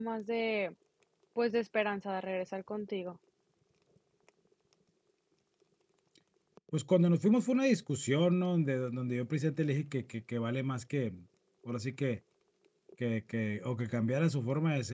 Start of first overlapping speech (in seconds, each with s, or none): none